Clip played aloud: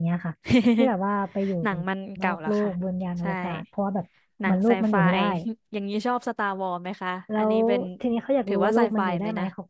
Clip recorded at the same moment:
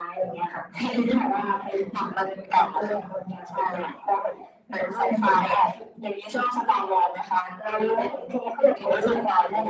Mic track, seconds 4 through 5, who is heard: echo only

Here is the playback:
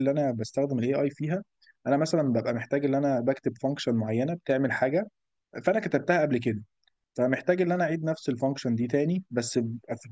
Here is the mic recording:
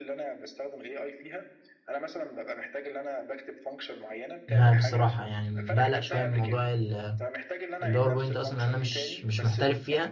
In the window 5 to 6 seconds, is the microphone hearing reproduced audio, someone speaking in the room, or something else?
both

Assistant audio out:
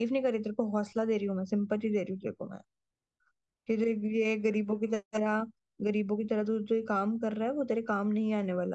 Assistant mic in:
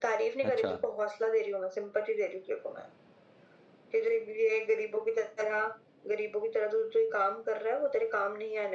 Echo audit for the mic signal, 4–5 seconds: echo only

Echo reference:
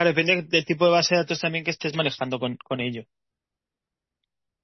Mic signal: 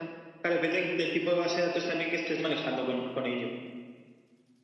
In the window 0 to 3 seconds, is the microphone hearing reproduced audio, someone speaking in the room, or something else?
echo only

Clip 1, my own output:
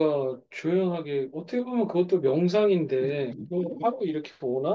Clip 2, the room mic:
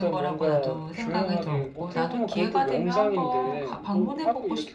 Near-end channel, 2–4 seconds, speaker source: both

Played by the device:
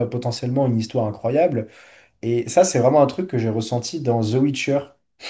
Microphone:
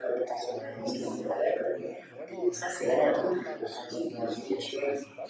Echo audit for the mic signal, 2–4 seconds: both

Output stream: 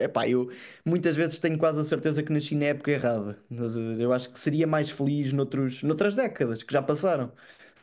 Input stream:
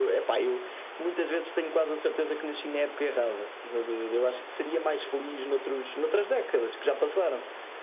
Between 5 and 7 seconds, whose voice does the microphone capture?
echo only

